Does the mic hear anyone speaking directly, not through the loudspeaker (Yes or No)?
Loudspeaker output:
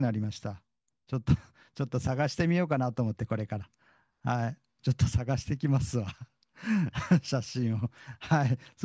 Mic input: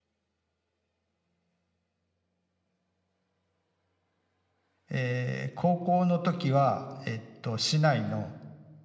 Yes